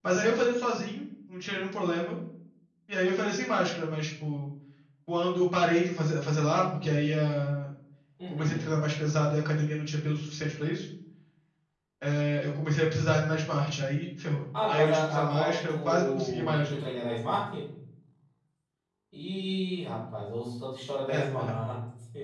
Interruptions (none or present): present